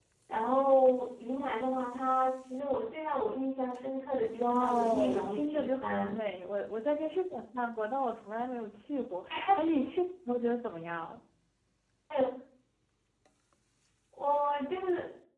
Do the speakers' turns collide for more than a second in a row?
Yes, from 4.4 s

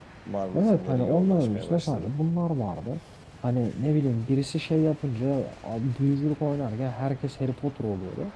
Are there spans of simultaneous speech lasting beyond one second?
Yes, from 0.6 s

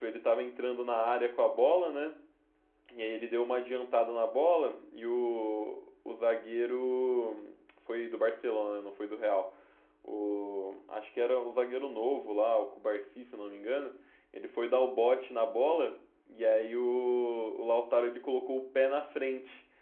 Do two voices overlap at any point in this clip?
No

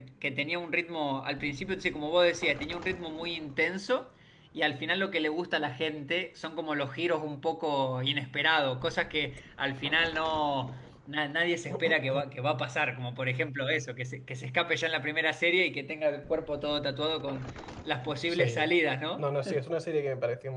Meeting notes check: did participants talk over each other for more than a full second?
No

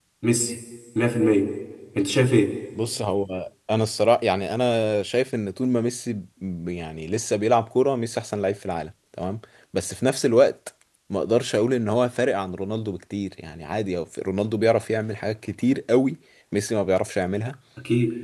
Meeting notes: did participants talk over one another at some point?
No

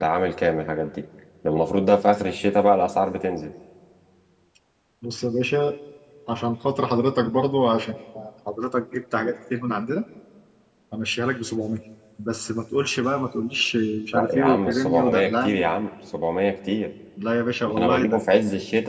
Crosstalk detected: Yes, from 14.1 s

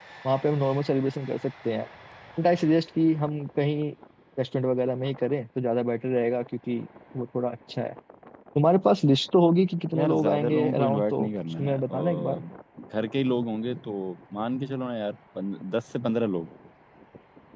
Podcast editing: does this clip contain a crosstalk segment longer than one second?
Yes, from 9.9 s

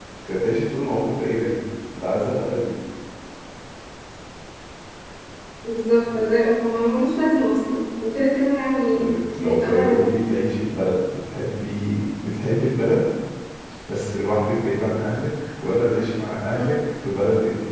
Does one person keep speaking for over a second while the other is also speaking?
Yes, from 8.9 s

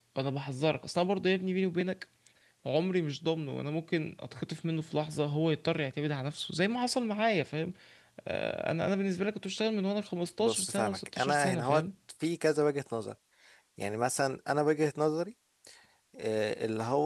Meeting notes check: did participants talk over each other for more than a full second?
Yes, from 10.4 s

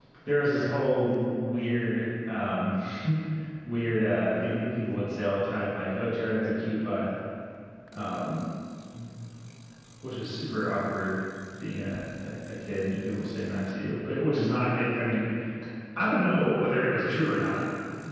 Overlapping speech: No

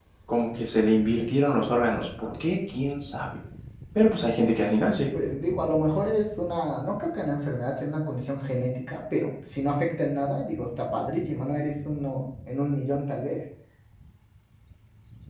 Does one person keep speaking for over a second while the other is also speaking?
No

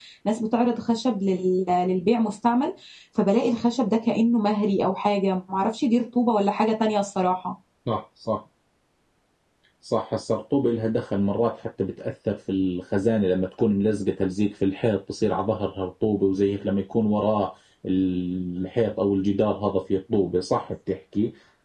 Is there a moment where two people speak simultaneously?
No

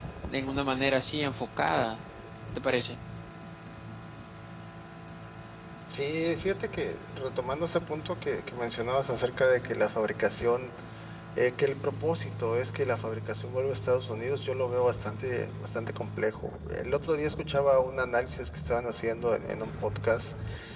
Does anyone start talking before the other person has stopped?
No

